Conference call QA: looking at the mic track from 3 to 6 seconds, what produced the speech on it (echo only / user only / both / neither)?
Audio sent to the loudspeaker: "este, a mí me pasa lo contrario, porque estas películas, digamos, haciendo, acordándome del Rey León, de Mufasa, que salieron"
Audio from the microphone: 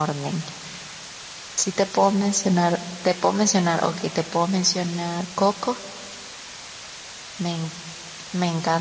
user only